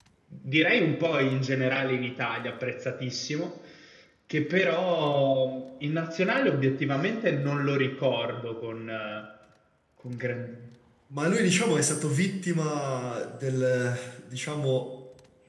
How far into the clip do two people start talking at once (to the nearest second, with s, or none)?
none